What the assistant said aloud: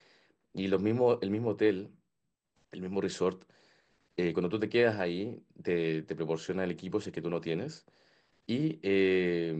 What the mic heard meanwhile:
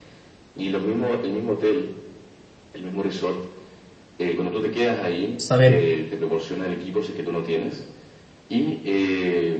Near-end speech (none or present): present